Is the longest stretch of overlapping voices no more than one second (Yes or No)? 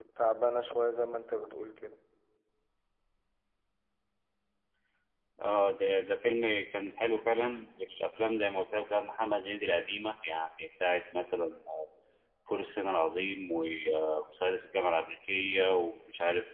Yes